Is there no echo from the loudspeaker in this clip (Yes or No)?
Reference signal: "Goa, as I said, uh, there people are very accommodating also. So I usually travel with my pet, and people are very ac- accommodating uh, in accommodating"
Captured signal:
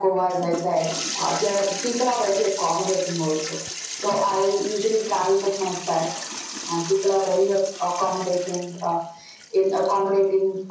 No